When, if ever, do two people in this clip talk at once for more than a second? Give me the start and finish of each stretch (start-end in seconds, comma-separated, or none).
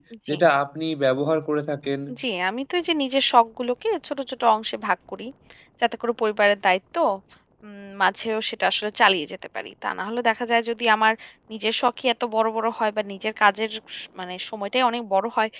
none